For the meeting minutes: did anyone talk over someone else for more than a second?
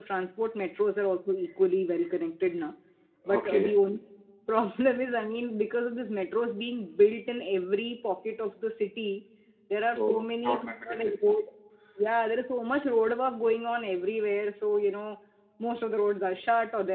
Yes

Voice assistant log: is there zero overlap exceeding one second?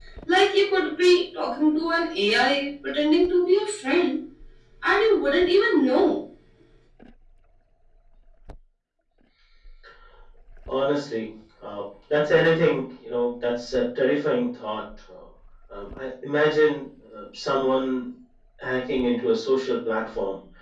Yes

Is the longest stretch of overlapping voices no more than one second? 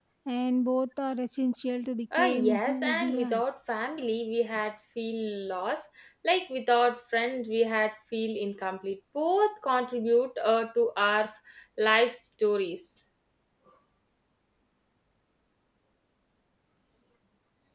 No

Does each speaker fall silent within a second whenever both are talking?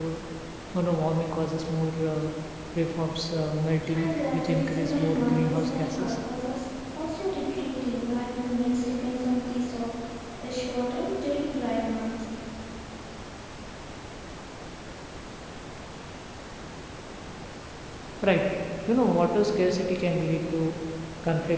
No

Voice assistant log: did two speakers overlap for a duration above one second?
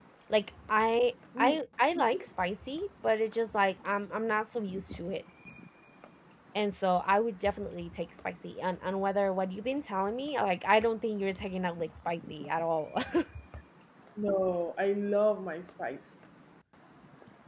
No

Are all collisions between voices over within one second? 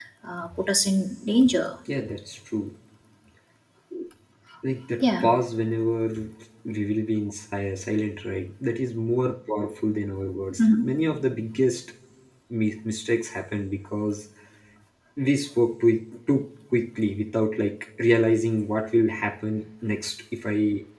Yes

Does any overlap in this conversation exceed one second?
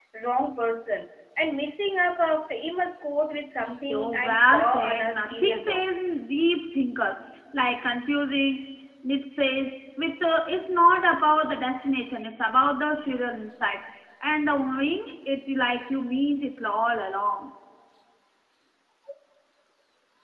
Yes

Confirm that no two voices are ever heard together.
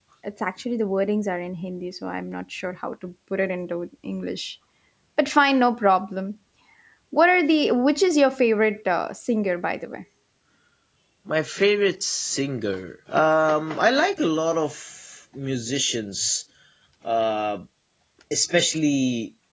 Yes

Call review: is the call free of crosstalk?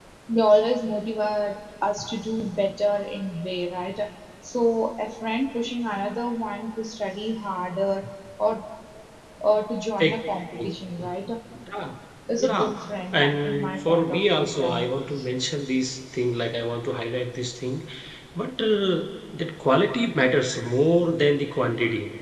No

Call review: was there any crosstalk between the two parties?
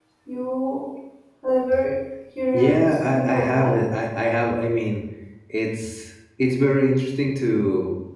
Yes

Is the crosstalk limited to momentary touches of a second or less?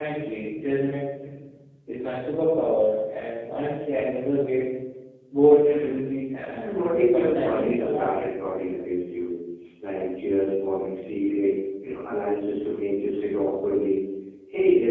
No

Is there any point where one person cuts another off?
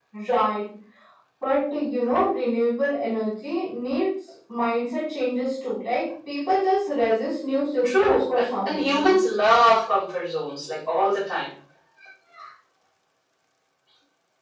Yes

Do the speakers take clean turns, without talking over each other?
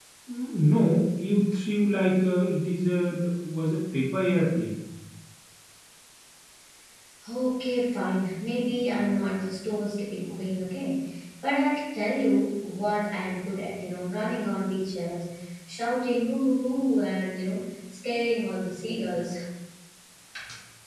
Yes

